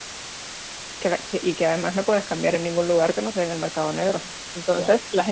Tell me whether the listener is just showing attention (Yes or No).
Yes